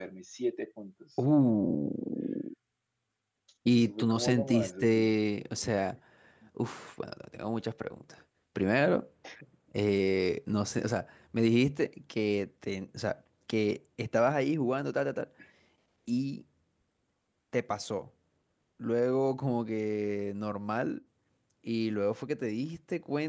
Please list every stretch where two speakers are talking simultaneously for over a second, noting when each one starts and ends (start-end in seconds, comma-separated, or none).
3.7-5.1